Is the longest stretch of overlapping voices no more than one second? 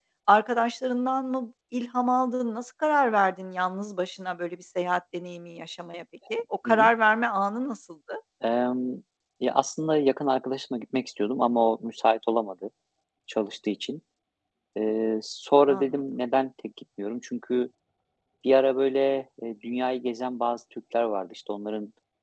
Yes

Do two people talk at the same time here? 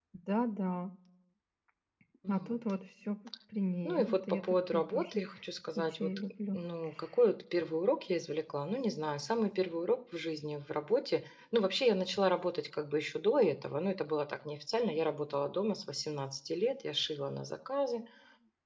Yes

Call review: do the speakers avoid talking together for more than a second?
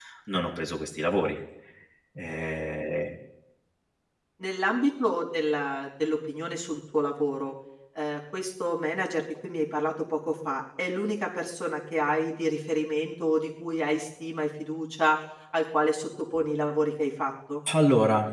Yes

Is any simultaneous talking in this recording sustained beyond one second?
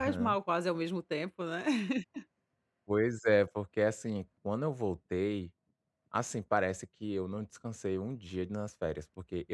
No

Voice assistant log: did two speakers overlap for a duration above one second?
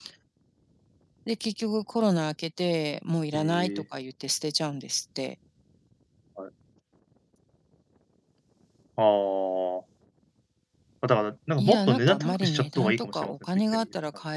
Yes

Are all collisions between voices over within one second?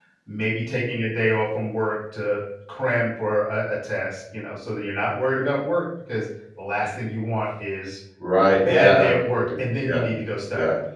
No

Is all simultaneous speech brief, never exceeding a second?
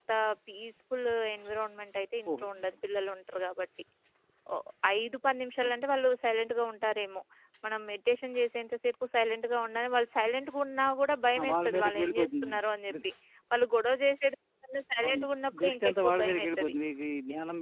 No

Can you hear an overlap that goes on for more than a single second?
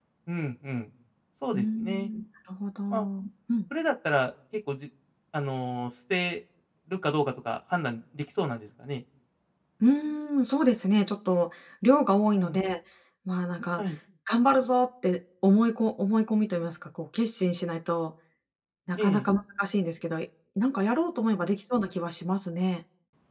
No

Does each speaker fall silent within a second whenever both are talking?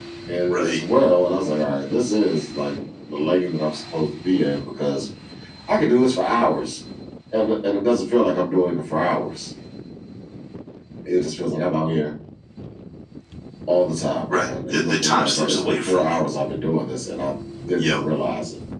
No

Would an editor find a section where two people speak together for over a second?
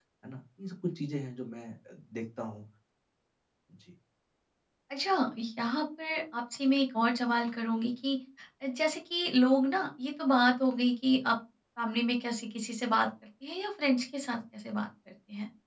No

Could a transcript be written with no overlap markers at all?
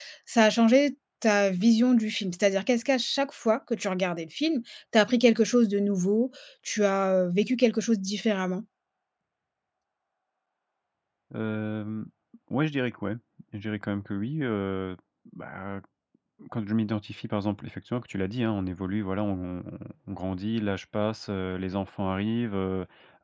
Yes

